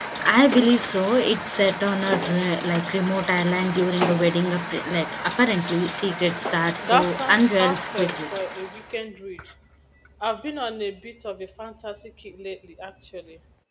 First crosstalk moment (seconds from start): 6.8 s

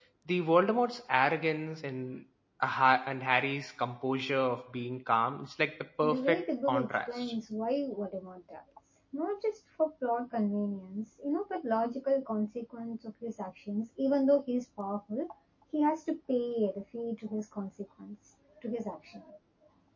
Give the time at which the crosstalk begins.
6.0 s

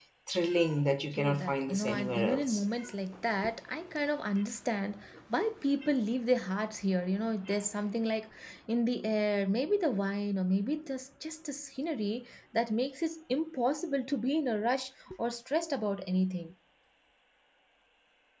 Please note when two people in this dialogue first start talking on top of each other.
1.2 s

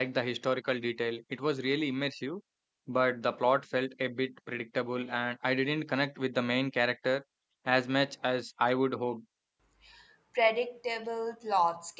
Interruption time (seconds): none

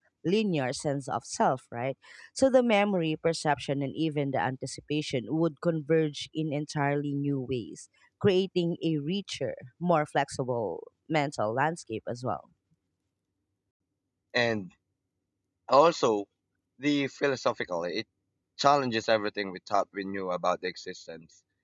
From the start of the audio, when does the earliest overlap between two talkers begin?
none

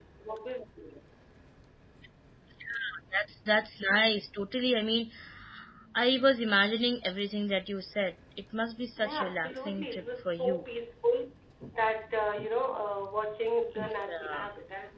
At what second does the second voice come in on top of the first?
9.0 s

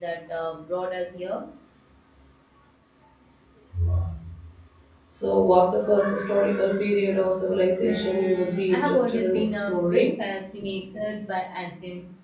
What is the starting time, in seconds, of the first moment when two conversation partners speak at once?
7.8 s

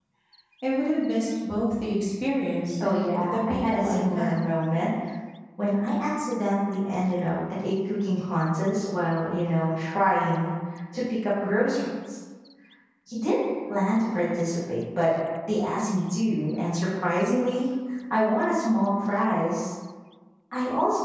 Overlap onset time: 2.8 s

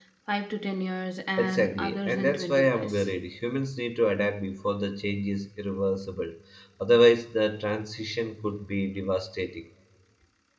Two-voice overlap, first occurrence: 1.4 s

